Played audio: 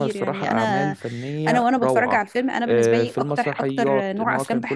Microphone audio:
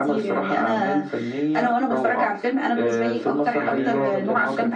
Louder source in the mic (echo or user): echo